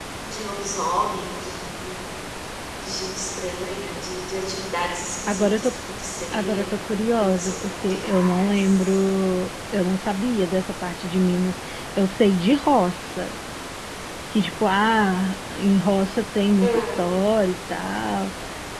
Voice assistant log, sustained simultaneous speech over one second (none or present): present